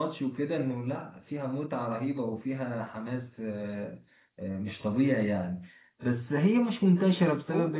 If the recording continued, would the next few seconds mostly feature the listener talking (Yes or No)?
No